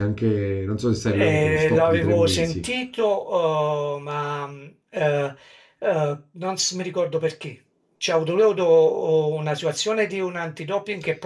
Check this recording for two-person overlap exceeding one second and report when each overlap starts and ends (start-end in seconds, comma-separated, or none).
1.1-2.6